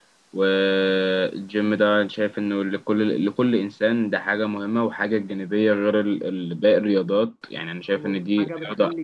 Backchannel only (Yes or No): No